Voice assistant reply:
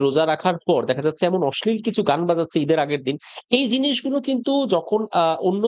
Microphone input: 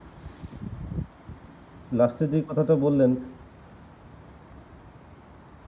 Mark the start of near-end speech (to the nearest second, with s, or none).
2 s